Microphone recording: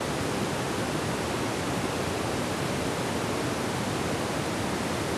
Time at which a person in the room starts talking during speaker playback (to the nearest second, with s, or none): none